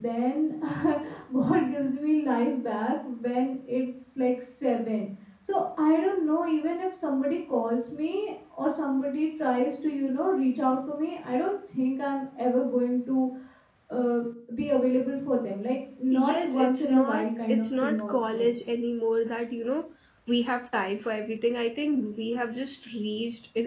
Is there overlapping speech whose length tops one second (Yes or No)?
Yes